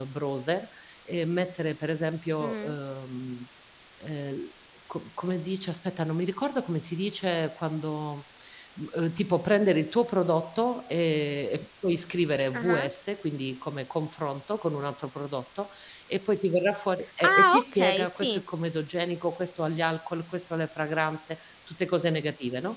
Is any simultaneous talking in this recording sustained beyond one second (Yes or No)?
Yes